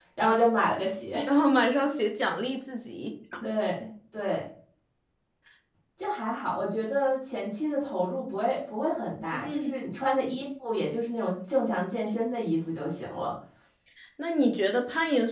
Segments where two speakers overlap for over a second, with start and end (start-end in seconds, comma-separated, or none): none